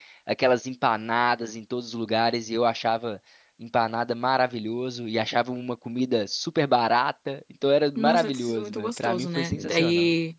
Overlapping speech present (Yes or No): Yes